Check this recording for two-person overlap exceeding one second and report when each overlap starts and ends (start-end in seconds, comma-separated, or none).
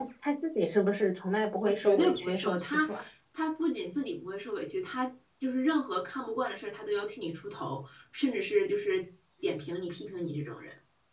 1.6-2.9